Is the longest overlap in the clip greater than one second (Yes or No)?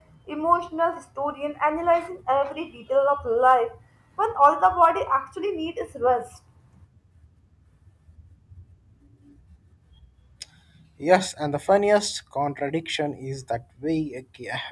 No